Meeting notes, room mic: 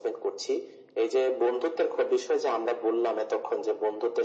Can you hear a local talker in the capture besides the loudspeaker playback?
No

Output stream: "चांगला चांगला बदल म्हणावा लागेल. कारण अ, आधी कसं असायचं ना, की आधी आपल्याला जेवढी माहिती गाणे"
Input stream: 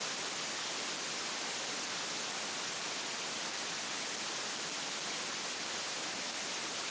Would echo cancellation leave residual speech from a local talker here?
No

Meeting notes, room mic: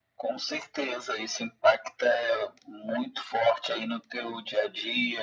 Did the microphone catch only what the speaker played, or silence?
Yes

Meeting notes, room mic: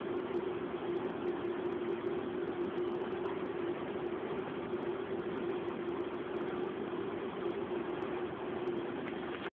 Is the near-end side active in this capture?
No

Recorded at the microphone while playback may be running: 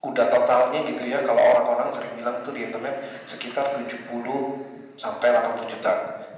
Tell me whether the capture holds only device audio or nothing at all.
Yes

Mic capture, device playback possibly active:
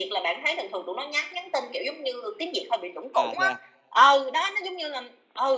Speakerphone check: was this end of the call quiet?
No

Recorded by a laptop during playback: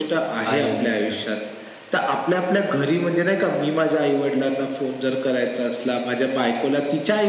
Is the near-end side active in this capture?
Yes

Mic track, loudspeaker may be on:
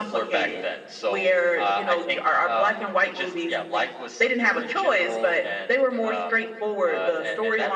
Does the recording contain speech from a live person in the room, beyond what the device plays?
No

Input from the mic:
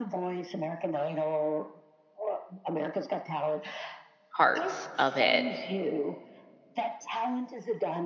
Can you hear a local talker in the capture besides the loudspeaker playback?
Yes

